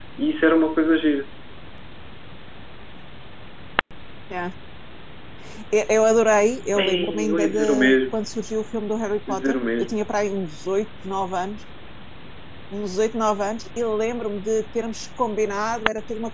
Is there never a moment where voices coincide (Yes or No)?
No